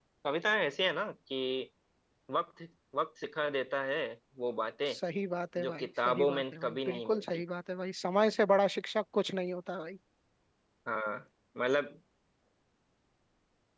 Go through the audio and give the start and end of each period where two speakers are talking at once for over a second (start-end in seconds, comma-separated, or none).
5.6-7.2